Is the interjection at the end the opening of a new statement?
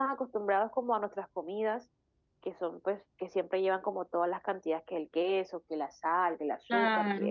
No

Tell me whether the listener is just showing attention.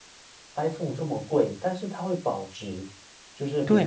No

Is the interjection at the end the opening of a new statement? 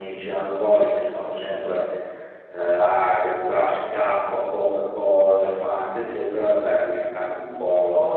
Yes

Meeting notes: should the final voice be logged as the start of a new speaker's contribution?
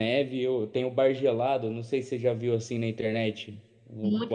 Yes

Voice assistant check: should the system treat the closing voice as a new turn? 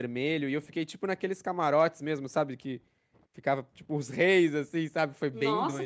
Yes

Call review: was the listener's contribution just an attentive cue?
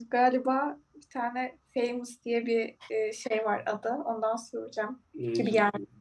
No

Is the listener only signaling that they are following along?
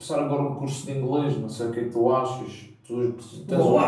No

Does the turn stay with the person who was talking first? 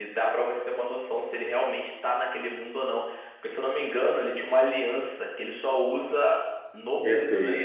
No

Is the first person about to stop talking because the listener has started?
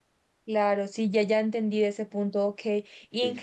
No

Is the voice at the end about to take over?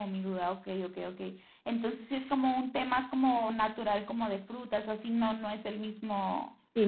Yes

